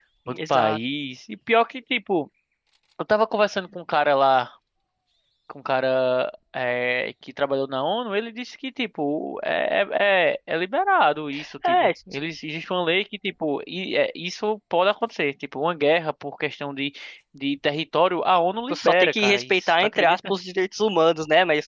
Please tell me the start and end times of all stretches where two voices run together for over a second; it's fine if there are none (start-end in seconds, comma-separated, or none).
18.7-20.3